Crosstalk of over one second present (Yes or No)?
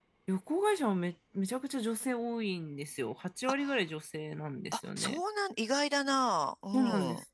No